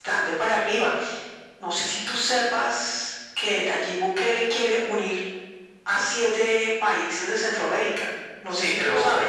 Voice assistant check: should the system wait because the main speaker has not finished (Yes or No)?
No